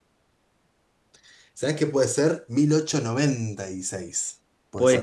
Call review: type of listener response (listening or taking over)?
taking over